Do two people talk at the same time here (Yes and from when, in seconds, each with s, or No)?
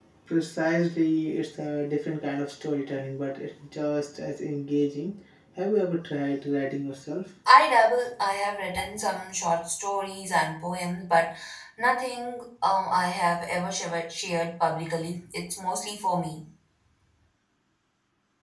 No